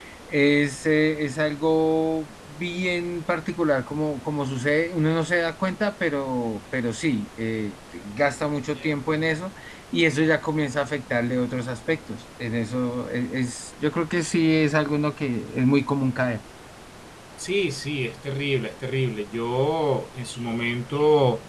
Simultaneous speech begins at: none

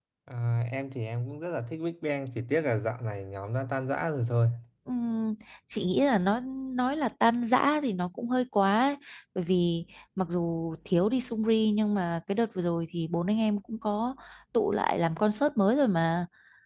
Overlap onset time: none

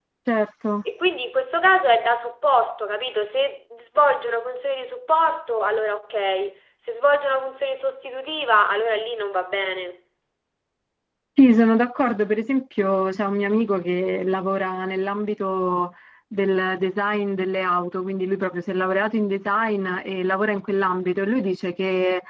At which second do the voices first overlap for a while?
none

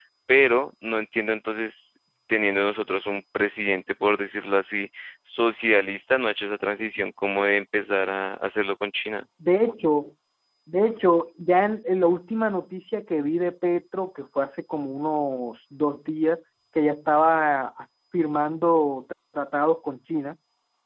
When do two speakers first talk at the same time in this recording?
none

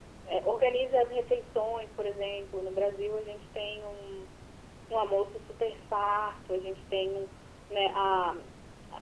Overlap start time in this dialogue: none

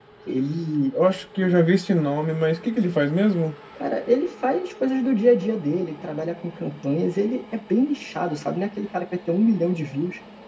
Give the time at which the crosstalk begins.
none

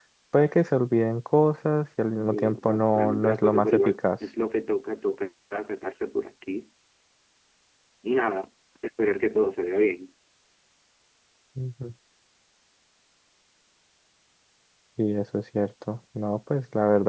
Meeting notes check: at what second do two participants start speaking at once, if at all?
2.3 s

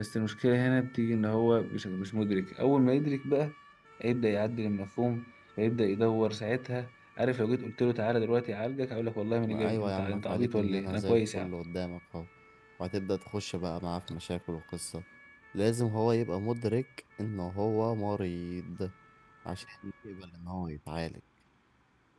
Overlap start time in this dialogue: 9.5 s

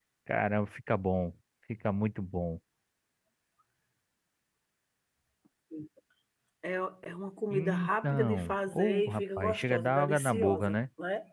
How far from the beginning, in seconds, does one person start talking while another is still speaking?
7.5 s

